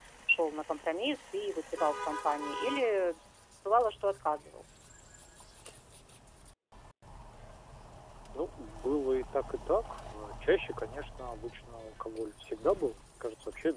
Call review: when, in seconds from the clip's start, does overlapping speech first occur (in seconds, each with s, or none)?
none